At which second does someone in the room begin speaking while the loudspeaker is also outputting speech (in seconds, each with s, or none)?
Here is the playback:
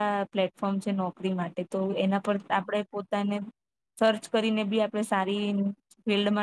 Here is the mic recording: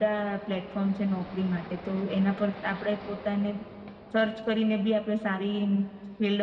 none